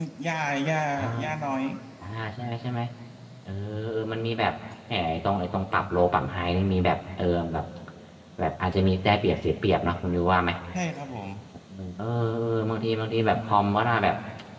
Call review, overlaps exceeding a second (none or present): none